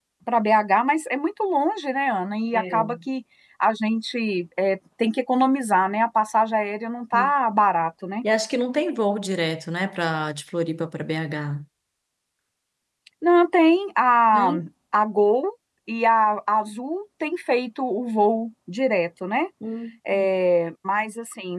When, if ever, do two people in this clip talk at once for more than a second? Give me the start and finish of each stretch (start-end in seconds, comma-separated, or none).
none